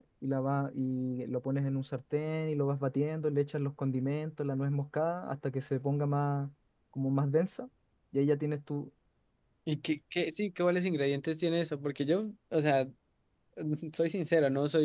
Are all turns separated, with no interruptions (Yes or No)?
Yes